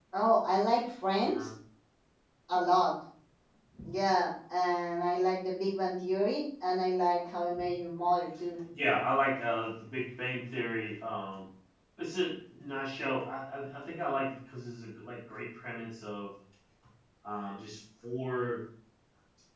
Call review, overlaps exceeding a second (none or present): none